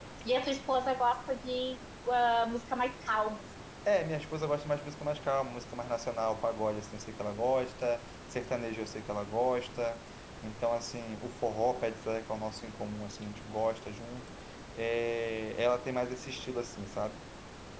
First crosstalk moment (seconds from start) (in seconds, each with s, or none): none